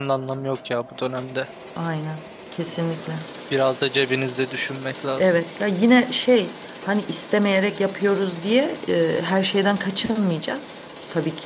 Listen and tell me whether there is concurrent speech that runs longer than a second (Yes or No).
No